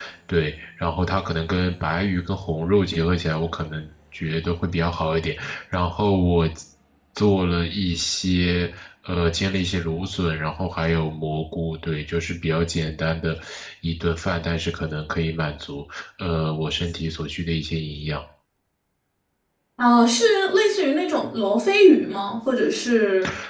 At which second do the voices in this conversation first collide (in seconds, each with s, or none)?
none